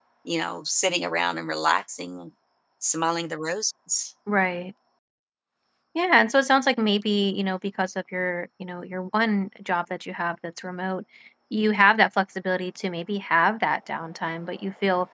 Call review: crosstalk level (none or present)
none